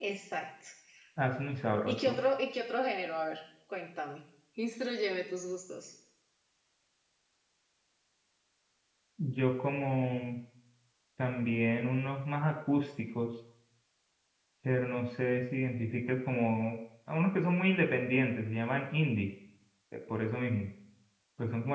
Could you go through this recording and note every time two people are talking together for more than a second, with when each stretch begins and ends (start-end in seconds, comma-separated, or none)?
none